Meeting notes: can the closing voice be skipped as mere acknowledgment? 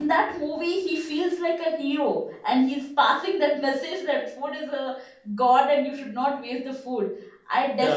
Yes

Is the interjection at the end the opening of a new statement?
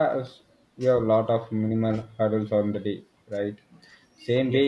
No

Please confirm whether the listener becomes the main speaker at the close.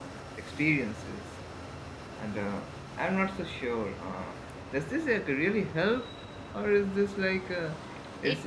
No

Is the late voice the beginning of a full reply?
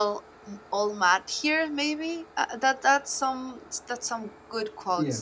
No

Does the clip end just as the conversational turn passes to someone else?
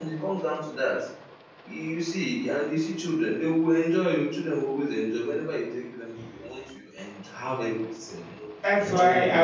Yes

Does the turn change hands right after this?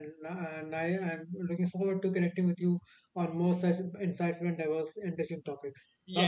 Yes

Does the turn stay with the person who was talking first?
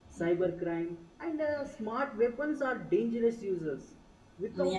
Yes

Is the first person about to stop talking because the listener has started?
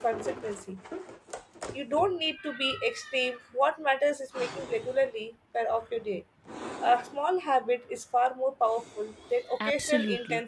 Yes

